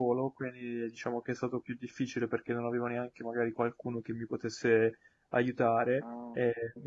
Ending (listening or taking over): listening